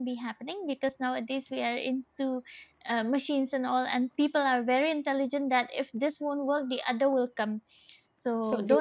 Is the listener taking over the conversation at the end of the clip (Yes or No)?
No